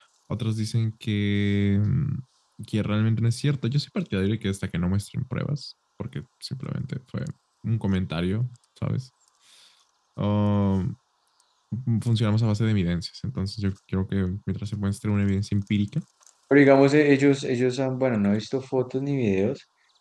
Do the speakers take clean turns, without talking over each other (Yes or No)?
Yes